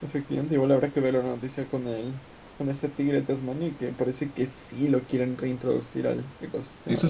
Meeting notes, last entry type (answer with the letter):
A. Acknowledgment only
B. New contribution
B